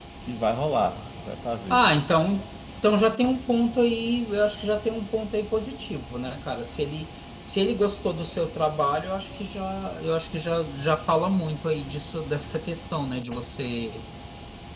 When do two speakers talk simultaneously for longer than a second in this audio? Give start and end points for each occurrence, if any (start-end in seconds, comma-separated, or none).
none